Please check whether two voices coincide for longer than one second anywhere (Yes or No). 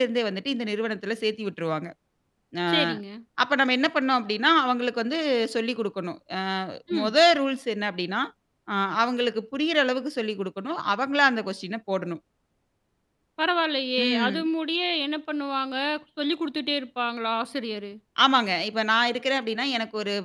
No